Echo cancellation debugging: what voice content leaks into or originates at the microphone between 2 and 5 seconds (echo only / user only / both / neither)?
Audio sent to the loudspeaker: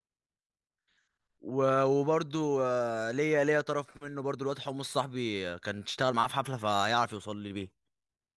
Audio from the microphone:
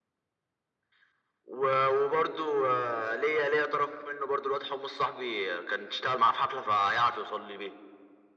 echo only